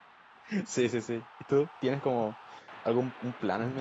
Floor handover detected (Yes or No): Yes